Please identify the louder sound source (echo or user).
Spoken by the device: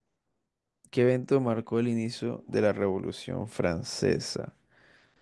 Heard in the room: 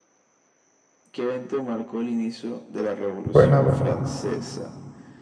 user